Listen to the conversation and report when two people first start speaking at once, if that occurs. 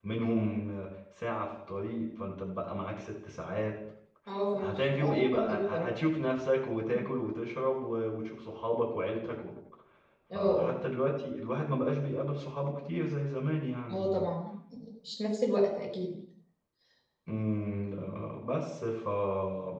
4.5 s

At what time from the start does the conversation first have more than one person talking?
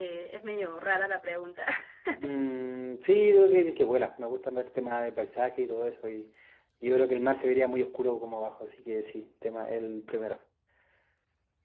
none

